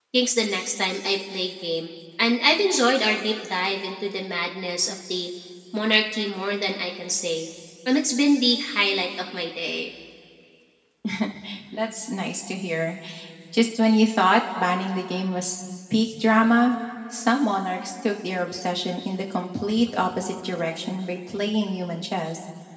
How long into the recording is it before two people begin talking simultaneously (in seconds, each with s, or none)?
none